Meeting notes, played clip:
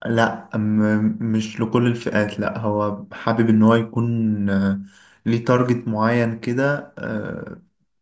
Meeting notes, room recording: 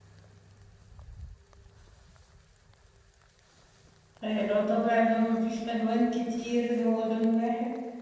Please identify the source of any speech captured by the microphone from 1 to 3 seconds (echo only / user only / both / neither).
neither